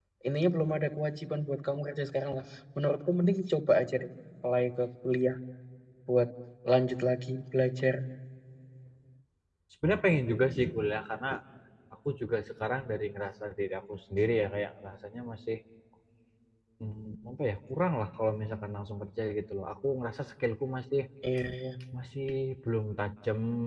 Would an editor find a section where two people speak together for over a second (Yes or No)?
No